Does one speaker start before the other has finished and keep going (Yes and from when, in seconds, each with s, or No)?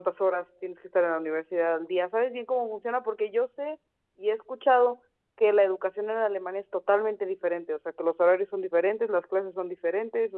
No